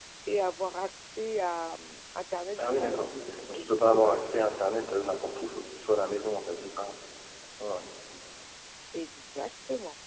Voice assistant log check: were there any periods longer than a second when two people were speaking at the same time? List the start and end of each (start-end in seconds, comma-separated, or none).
2.6-4.5